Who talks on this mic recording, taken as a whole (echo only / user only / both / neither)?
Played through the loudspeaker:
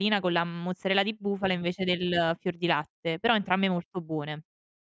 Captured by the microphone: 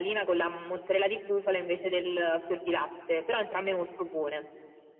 echo only